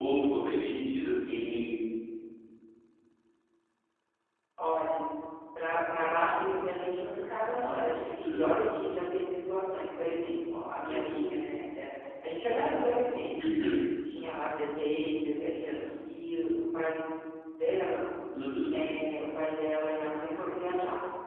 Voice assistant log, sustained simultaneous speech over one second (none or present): none